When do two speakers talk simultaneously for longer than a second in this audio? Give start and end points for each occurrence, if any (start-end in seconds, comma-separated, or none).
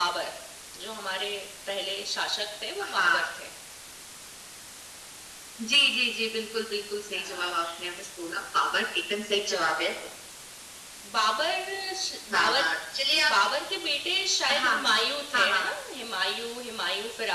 none